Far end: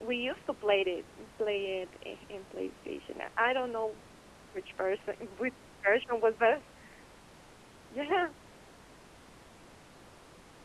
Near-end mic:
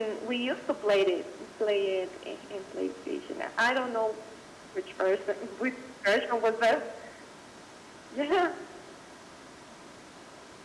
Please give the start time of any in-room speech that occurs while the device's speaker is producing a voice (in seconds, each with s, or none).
none